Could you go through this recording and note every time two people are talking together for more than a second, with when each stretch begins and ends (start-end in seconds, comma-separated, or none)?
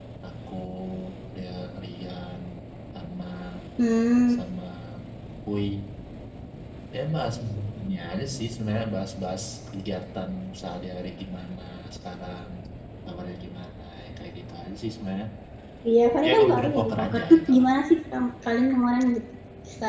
16.3-17.6